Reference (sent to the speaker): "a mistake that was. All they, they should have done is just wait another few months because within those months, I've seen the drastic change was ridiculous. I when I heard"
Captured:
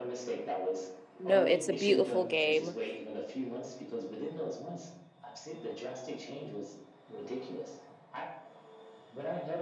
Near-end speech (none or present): present